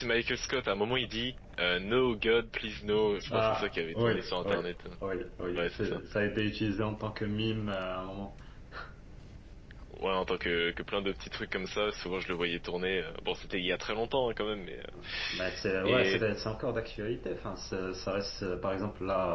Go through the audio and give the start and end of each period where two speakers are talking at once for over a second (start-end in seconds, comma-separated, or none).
3.3-4.6